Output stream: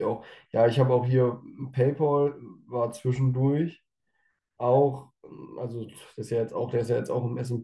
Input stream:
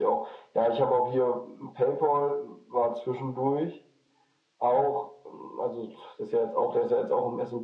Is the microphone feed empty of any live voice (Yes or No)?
Yes